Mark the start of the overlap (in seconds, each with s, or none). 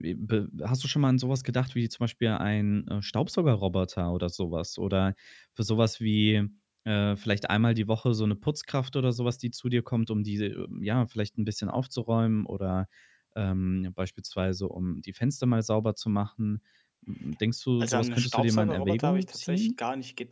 17.8 s